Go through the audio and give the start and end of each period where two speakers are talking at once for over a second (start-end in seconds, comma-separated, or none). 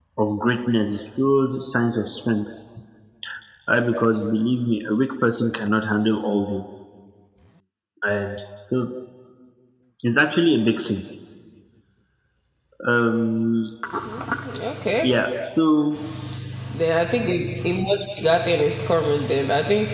none